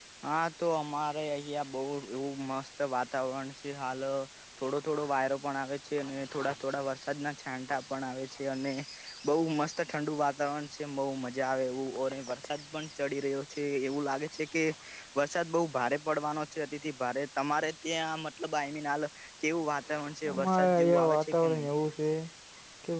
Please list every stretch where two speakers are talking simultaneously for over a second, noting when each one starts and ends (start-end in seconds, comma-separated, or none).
20.3-21.7